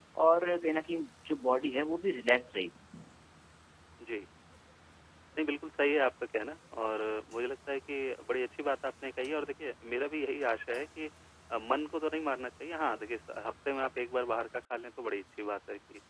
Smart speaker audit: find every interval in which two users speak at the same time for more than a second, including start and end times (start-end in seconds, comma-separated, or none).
none